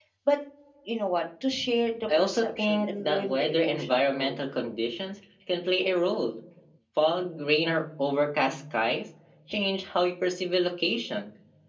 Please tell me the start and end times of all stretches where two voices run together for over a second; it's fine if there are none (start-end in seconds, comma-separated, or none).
2.1-4.3